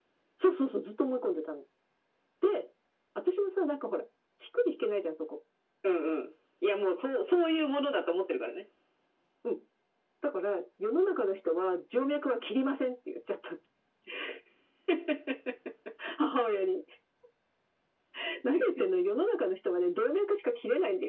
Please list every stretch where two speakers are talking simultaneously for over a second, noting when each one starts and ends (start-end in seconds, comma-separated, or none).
none